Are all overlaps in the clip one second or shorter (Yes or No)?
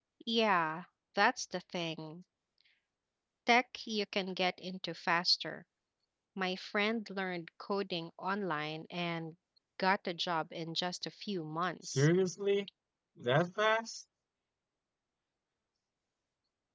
Yes